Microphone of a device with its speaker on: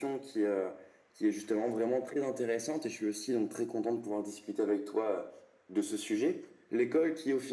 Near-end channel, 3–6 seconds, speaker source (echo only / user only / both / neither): echo only